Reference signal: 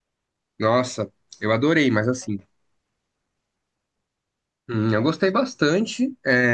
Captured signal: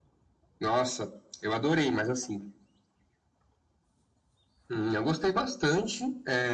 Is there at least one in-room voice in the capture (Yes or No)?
No